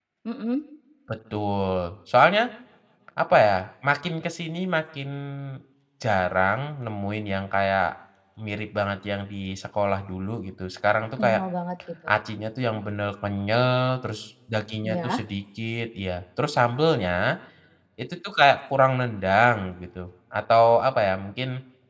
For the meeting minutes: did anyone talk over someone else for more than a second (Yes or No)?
No